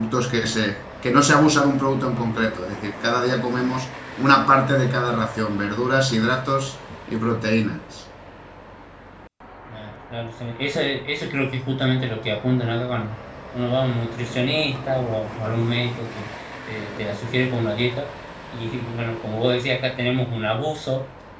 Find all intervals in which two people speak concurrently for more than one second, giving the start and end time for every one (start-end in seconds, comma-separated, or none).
none